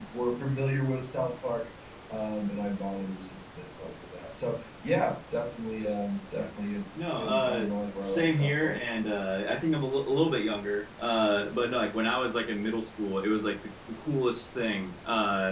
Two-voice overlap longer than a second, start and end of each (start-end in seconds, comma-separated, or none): 7.2-8.8